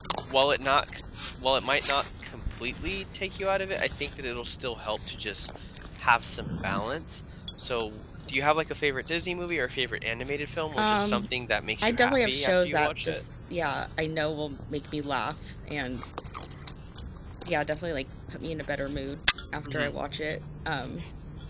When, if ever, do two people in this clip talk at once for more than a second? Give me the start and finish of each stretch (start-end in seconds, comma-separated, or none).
11.8-13.2